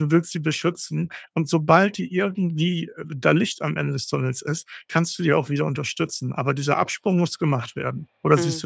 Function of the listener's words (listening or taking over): taking over